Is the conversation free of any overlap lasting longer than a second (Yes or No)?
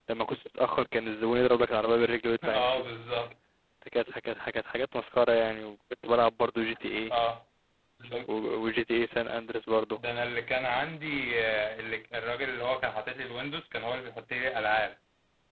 Yes